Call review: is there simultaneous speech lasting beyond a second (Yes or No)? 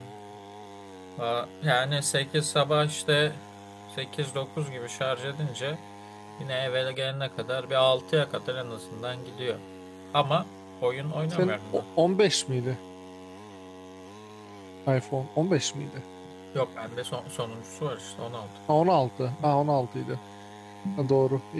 No